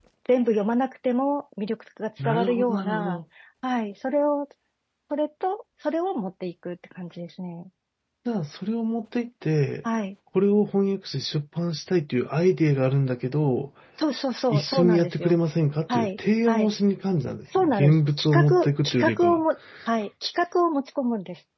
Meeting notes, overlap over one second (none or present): present